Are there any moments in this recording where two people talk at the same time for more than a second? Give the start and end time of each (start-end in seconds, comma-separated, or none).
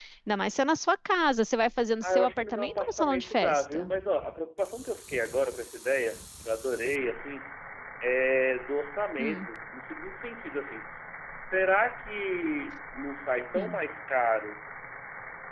2.0-3.9